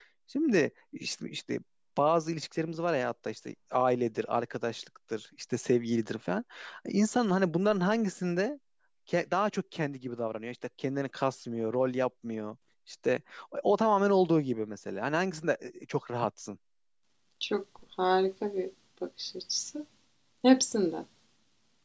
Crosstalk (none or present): none